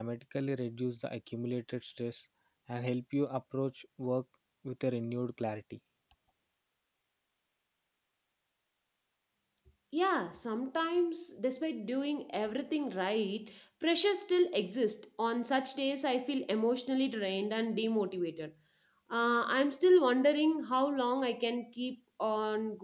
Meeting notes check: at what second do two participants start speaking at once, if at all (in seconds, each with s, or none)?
none